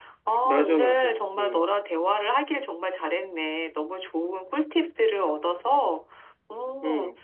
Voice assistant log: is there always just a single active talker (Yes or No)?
No